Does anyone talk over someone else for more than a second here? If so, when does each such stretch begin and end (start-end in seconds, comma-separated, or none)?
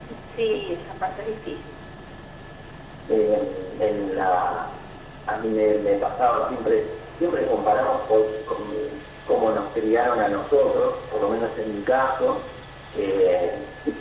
none